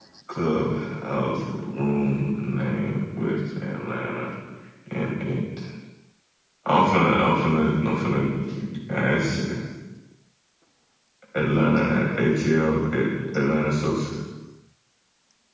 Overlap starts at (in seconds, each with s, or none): none